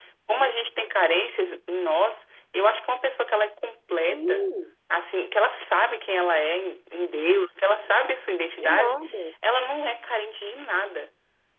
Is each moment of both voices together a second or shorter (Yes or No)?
Yes